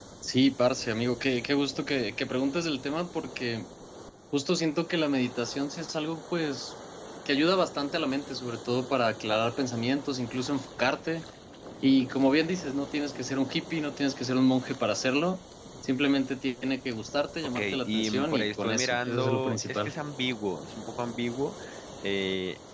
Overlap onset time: 17.6 s

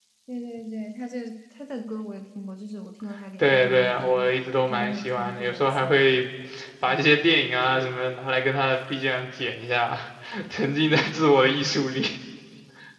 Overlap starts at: 3.4 s

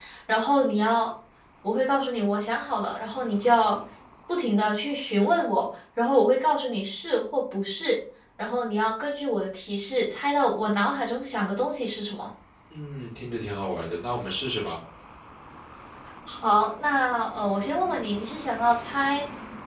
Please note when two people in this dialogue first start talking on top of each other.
none

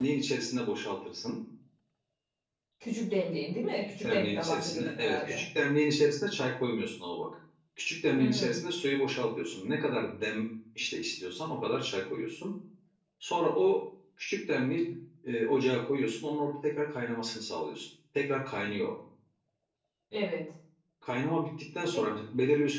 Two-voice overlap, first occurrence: 3.8 s

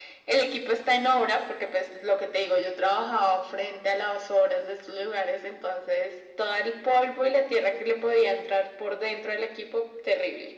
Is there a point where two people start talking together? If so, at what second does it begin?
none

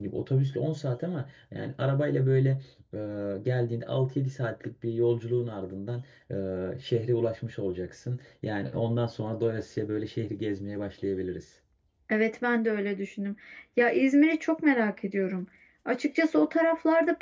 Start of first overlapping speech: none

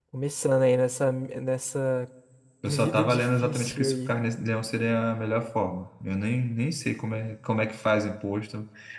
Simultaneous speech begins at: 2.6 s

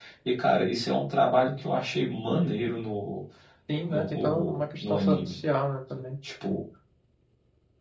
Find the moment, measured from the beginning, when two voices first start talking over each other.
3.9 s

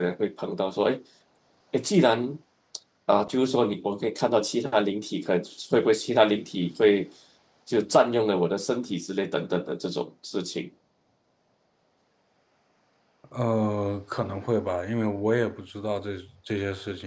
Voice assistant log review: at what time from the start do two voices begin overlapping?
none

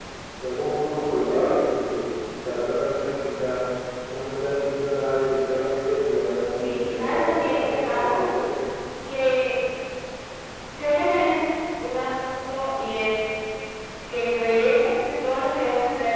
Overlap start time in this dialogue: 6.6 s

